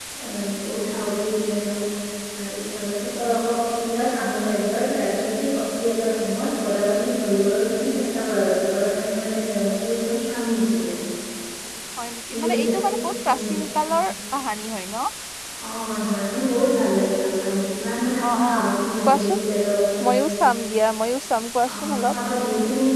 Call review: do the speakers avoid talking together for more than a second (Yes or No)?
Yes